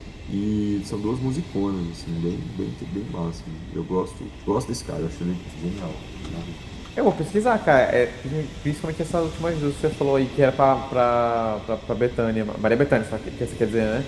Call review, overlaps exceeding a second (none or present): none